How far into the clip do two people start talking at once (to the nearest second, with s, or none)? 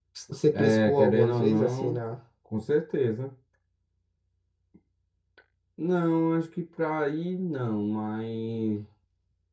1 s